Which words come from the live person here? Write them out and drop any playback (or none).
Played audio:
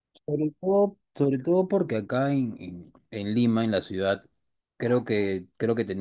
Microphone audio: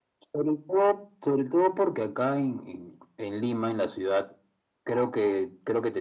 none